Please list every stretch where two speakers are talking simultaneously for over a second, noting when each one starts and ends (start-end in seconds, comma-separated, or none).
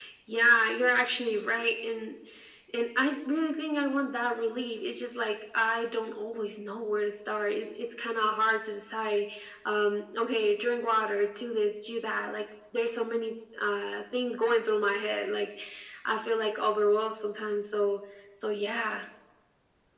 none